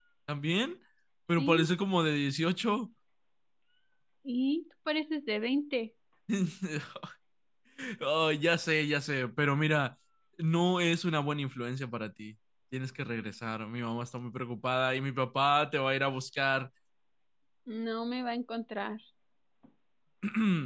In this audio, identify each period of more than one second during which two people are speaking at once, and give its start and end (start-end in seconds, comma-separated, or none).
none